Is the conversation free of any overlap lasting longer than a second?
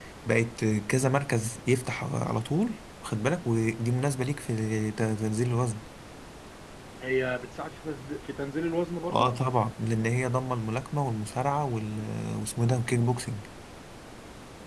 Yes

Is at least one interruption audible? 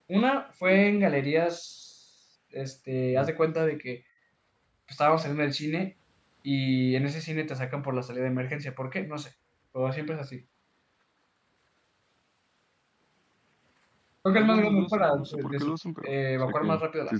Yes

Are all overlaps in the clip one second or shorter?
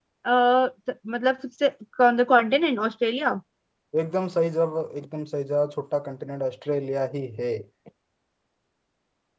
Yes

